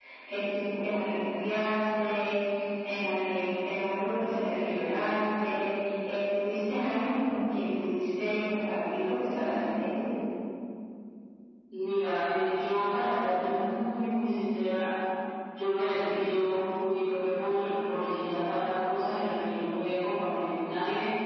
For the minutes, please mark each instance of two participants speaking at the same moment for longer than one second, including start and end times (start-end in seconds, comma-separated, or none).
none